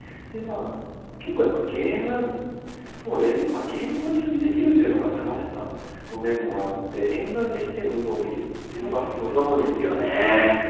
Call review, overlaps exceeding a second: present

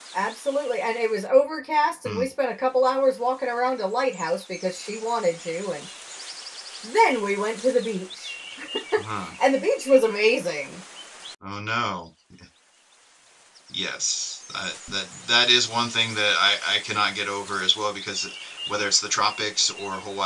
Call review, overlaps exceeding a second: none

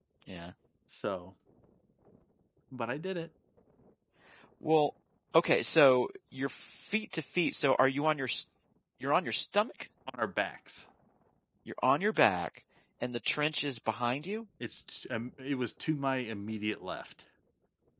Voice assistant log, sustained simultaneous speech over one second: none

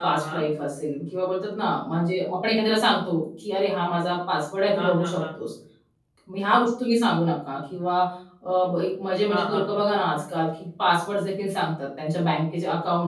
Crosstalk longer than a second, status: none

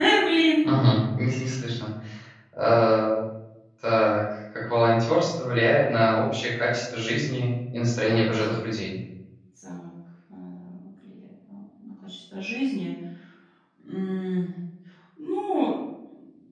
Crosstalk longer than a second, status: none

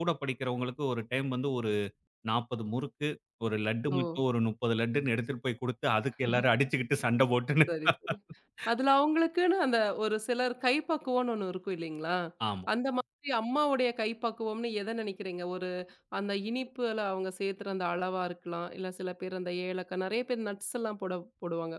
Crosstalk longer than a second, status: none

